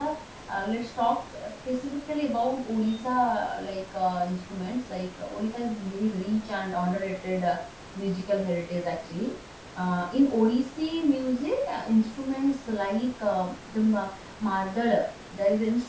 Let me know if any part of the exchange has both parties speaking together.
No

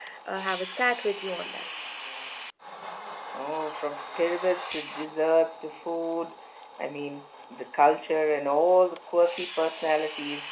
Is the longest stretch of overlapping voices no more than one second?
Yes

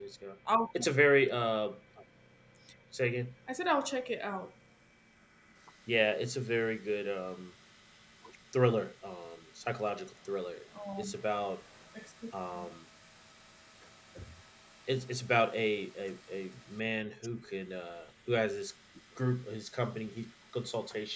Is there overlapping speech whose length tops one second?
No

